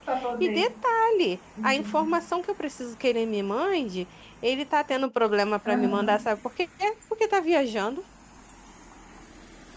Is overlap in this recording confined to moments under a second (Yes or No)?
Yes